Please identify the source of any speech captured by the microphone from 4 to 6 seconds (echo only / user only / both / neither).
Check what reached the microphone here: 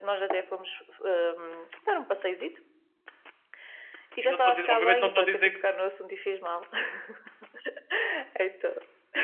both